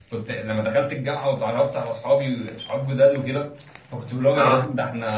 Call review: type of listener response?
listening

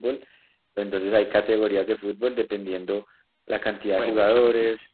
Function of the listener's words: listening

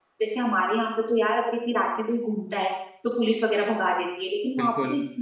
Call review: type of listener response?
listening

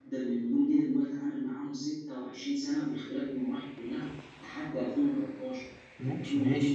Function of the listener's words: taking over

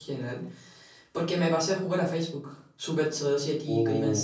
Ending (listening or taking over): listening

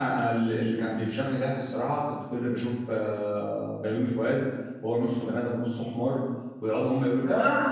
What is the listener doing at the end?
listening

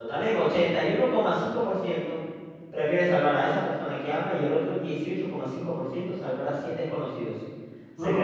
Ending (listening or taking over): taking over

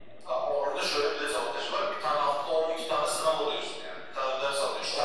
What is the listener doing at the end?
taking over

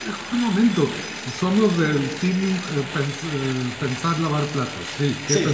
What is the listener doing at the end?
taking over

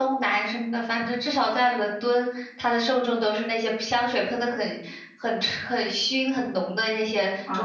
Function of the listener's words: taking over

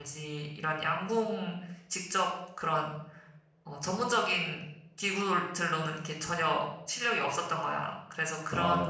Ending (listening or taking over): listening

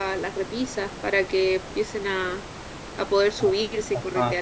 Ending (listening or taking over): taking over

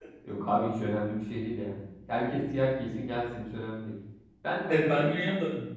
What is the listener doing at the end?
taking over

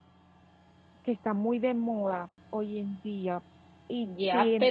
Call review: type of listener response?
taking over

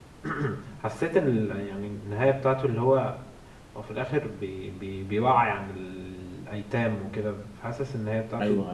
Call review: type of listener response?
listening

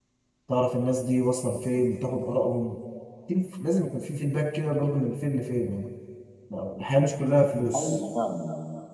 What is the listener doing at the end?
taking over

